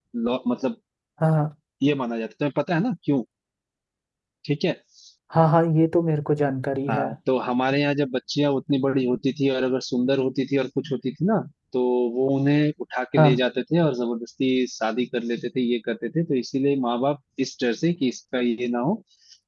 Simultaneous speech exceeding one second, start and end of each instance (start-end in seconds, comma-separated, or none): none